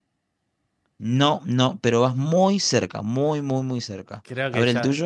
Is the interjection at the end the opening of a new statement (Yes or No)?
Yes